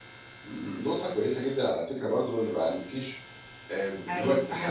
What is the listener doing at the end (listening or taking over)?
listening